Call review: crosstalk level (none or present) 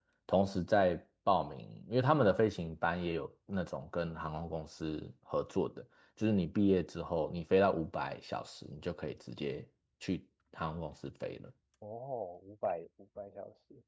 none